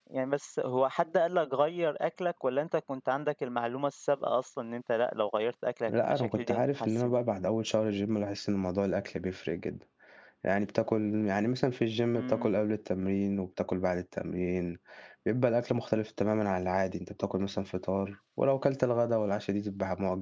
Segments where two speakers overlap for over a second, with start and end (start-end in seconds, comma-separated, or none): 5.9-7.1